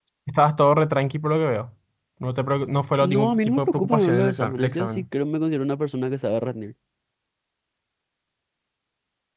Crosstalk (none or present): present